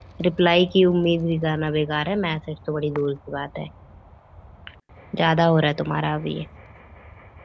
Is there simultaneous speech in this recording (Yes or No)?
No